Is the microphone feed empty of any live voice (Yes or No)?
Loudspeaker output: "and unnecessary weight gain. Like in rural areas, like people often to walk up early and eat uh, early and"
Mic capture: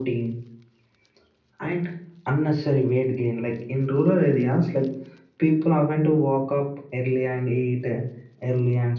Yes